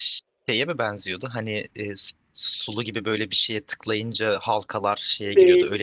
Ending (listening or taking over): taking over